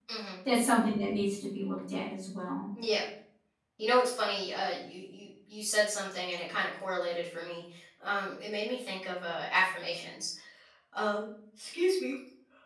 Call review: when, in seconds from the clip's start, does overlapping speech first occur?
none

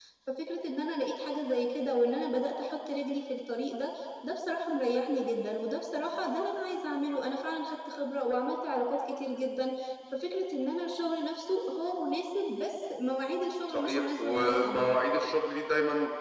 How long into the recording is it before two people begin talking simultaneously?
14 s

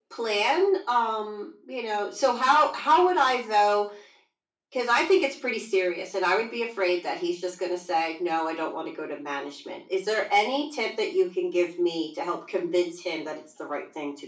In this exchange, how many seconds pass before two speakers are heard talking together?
none

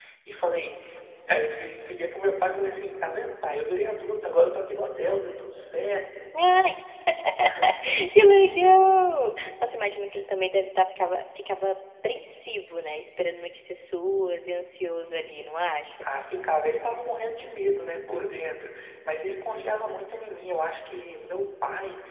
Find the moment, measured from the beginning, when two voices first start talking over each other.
none

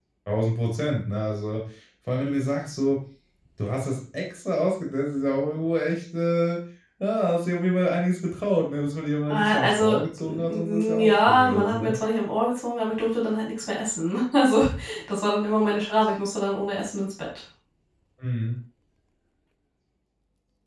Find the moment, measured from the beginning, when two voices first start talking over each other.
9 s

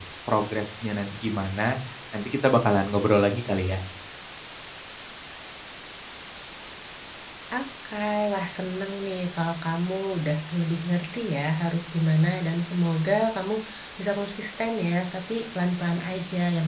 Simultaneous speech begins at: none

